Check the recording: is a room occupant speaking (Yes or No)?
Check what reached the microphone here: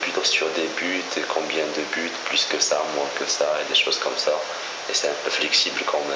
No